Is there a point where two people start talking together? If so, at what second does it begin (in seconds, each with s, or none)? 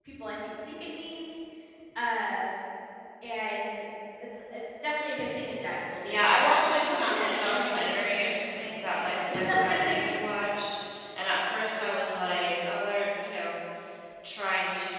6.0 s